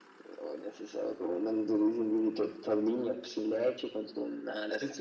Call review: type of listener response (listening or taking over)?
taking over